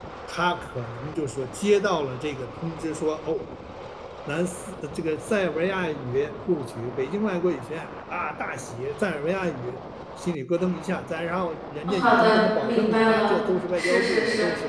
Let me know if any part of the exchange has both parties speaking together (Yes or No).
Yes